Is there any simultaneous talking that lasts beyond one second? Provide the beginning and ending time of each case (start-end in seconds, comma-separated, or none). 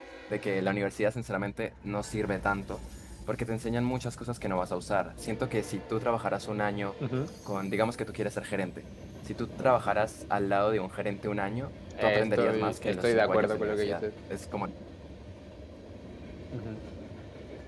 12.0-14.0